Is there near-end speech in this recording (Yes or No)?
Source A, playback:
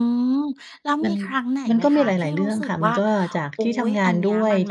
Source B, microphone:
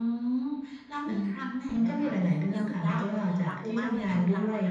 Yes